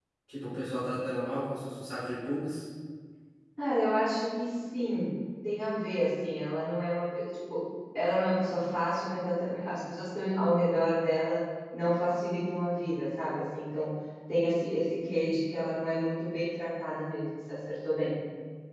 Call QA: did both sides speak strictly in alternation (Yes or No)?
Yes